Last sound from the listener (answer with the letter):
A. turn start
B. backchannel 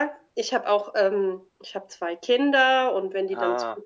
B